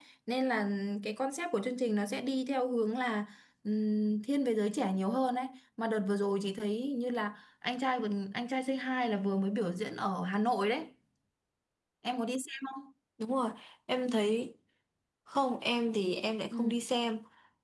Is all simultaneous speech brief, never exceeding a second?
Yes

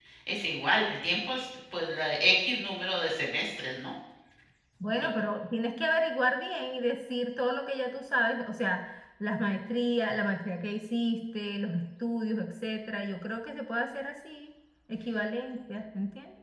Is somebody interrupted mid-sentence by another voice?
No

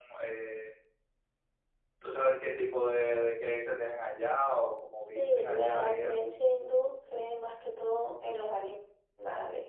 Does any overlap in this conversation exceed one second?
Yes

